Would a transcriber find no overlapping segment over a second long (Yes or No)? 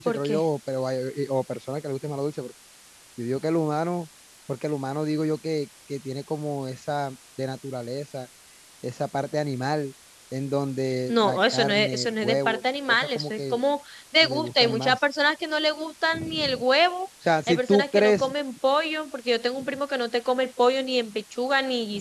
No